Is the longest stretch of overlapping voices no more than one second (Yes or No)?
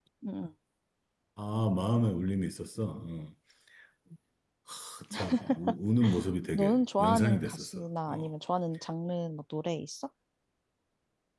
No